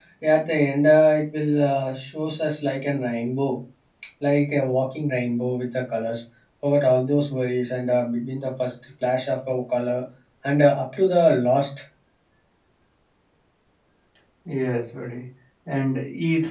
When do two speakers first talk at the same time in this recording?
none

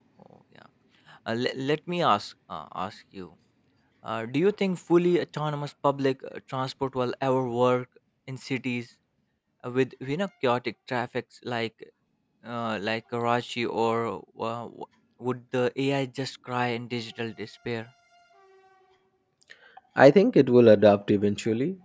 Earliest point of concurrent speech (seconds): none

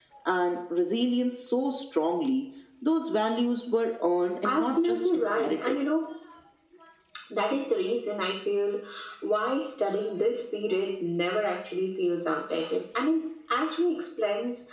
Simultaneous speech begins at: 4.4 s

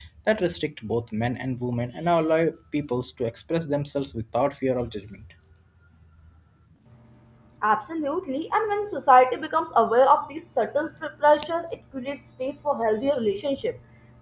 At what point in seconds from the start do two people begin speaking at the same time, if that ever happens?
none

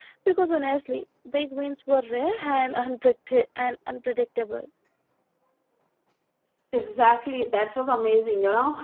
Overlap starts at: none

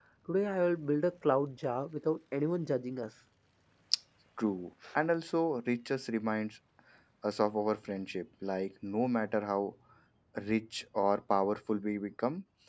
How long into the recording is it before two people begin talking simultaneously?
none

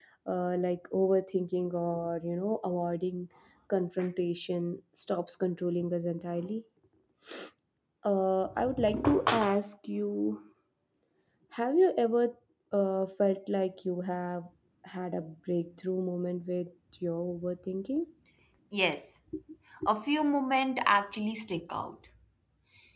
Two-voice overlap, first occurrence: none

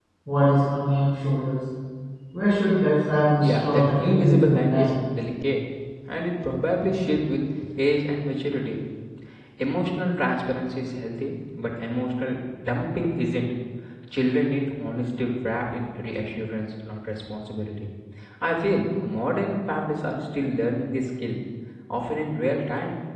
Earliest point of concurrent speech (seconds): 3.4 s

